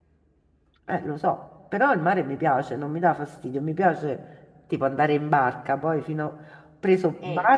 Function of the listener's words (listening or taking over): listening